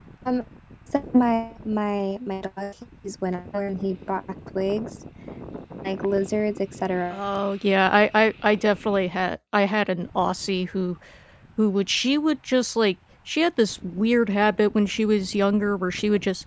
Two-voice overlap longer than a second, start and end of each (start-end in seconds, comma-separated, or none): none